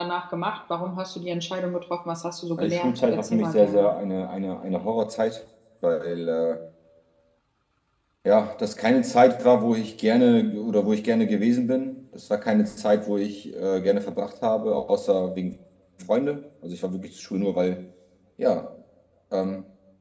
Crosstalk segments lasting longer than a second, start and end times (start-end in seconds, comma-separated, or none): 2.6-3.9